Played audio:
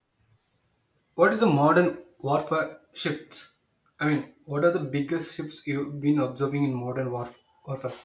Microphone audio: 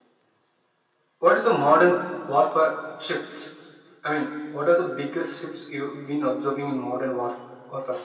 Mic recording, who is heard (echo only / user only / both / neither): echo only